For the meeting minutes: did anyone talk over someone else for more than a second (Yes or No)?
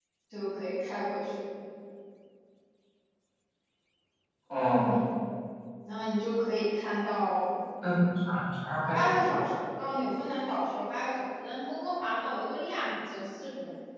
No